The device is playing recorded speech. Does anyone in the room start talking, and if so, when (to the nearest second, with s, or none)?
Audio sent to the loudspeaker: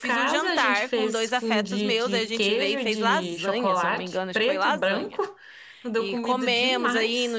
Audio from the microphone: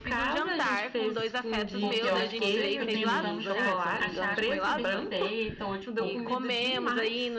2 s